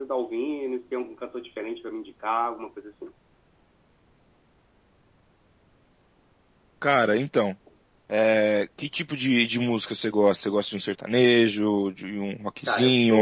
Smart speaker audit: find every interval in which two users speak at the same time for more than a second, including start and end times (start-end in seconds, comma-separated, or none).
none